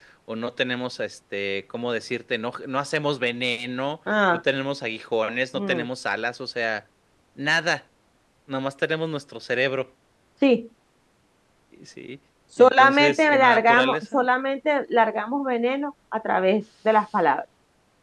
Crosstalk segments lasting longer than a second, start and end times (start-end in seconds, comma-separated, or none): 12.6-14.3